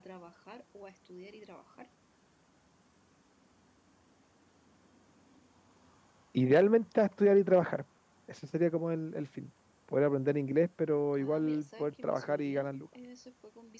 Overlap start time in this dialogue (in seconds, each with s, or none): 11.2 s